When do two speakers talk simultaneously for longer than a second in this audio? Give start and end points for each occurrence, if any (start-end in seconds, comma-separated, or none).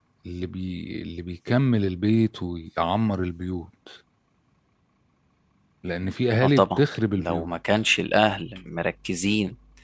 none